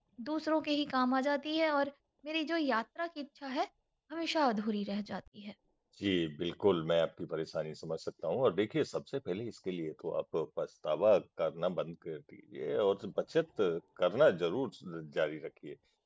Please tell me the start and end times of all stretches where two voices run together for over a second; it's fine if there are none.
none

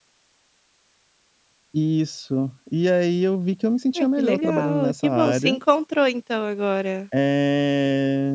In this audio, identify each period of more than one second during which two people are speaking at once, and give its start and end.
4.0-5.6

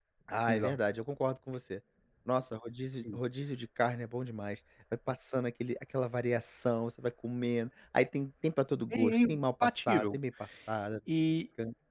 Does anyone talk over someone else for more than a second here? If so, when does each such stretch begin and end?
none

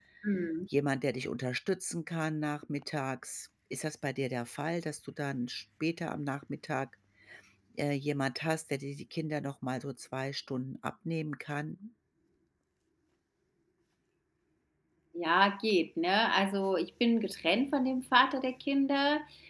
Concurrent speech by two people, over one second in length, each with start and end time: none

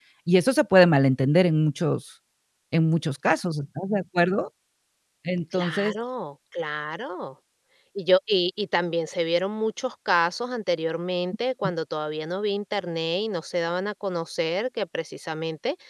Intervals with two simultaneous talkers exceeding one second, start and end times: none

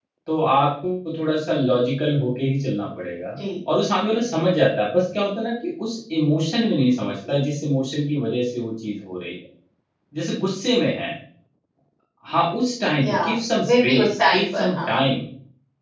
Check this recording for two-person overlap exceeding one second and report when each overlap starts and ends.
13.7-14.9

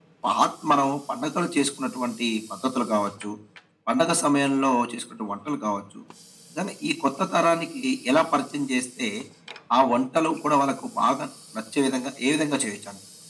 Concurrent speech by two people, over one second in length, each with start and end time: none

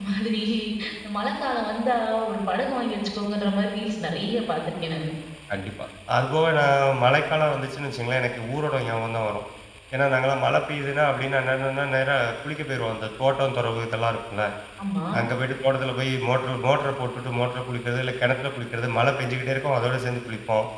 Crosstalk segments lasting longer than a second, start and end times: none

